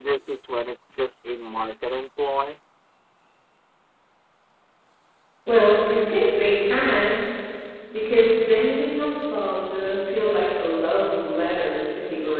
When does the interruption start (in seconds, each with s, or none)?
none